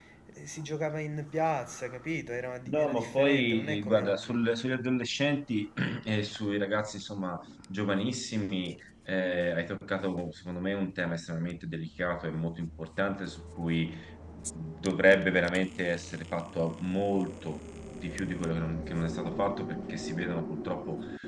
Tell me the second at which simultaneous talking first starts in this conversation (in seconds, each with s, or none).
2.7 s